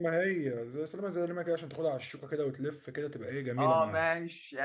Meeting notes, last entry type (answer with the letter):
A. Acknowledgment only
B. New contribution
B